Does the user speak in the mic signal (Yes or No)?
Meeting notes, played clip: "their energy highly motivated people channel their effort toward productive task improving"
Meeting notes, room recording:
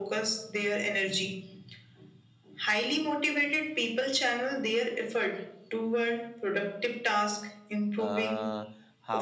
Yes